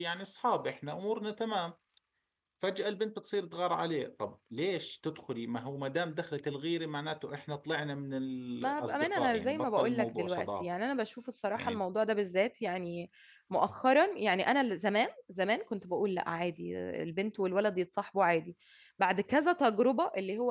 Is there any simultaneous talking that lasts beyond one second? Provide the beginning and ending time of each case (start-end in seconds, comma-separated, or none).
8.6-10.8